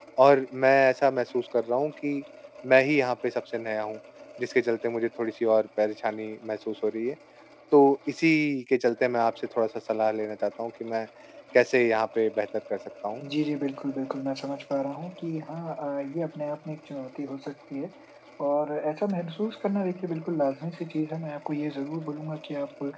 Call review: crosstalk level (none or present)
none